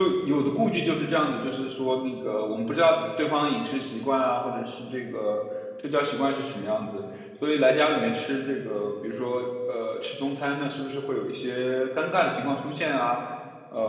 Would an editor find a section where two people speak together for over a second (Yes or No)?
No